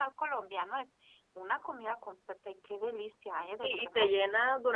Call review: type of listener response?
taking over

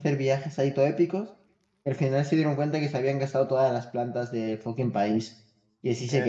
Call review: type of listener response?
taking over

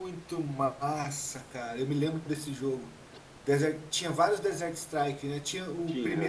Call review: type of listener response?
listening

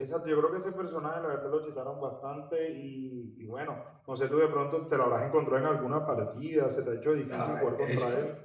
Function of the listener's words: taking over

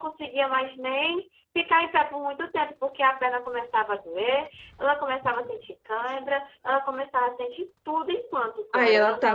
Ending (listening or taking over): taking over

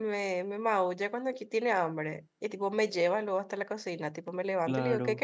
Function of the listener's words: listening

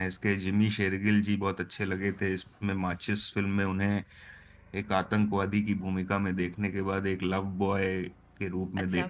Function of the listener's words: taking over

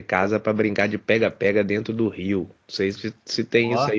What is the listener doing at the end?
listening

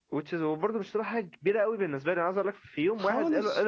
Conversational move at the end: listening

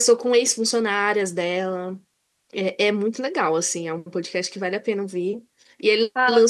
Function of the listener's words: listening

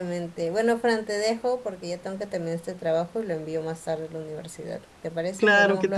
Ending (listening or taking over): taking over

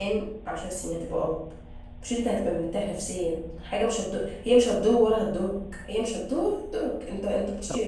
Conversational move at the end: listening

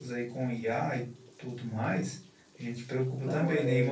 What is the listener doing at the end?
listening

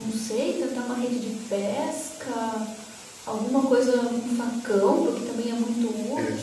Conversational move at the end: listening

